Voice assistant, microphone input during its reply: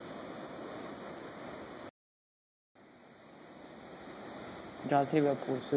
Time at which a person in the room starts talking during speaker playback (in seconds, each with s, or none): 4.8 s